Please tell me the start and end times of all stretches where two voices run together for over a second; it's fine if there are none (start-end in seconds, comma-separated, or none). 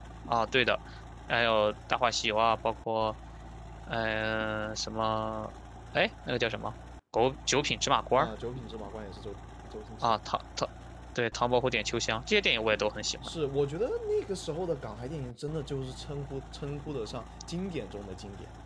none